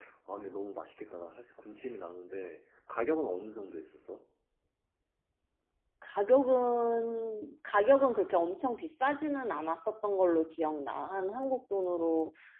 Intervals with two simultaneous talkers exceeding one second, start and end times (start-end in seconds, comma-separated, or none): none